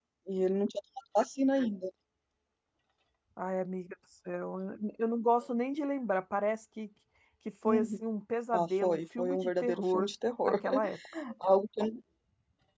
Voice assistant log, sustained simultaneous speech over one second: present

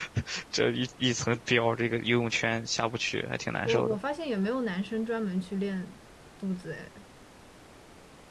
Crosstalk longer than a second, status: none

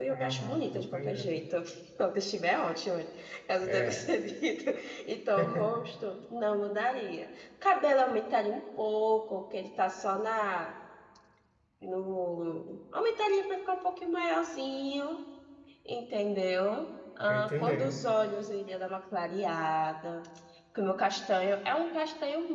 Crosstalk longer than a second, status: present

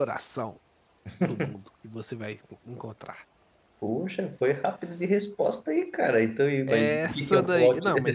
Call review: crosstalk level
present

